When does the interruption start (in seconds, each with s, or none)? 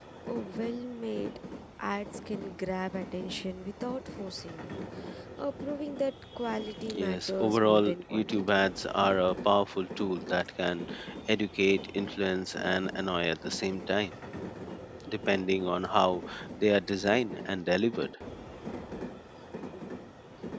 6.9 s